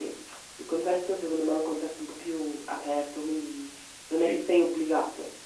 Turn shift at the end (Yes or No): No